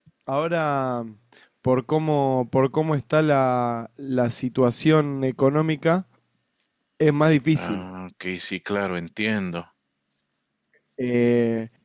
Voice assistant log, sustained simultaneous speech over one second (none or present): none